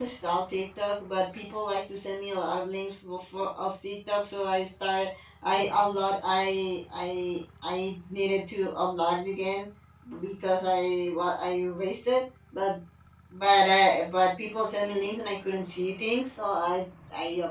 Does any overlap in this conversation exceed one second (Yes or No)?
No